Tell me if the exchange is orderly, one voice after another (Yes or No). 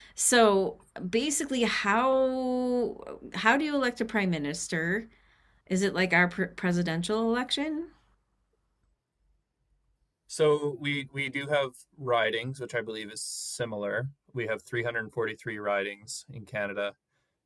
Yes